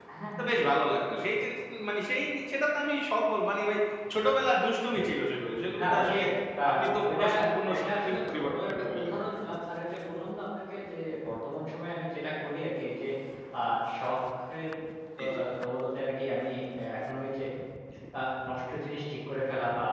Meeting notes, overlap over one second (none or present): present